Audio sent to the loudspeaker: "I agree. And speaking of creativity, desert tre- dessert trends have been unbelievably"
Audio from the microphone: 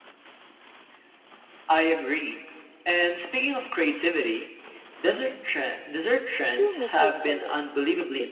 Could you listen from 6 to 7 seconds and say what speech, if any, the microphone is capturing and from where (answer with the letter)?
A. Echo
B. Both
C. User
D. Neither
B